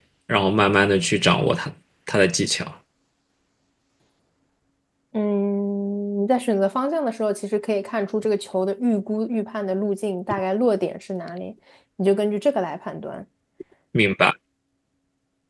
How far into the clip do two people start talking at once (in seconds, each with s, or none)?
none